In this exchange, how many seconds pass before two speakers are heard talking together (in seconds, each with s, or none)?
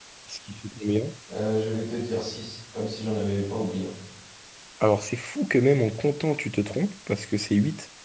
none